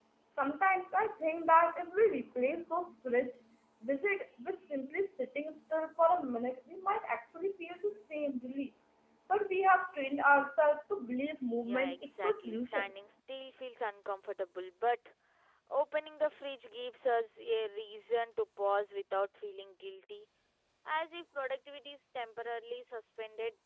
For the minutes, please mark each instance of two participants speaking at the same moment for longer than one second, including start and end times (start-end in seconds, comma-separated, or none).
11.7-12.9